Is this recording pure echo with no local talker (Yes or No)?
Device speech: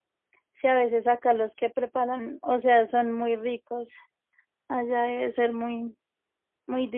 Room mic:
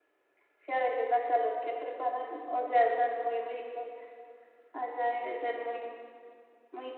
Yes